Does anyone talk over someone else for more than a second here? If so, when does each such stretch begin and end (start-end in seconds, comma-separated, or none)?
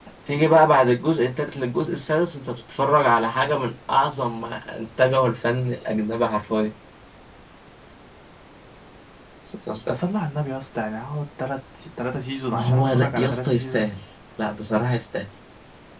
12.5-13.9